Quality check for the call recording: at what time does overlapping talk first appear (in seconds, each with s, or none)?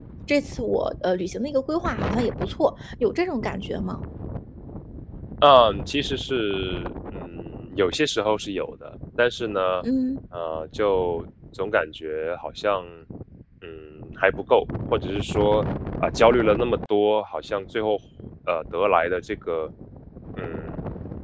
none